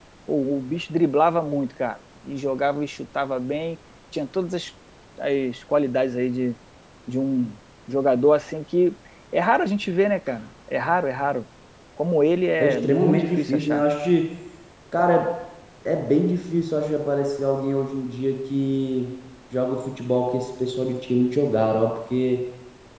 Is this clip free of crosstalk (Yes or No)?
No